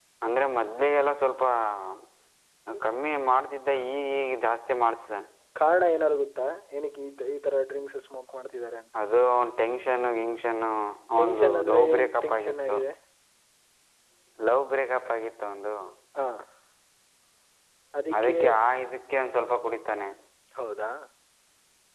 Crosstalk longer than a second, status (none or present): present